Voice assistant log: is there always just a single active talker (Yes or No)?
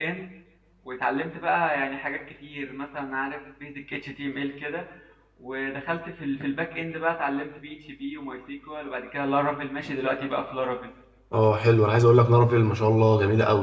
Yes